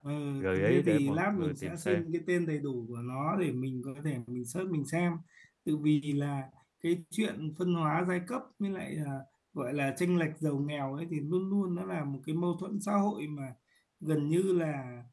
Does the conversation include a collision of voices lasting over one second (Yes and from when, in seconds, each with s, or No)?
Yes, from 0.7 s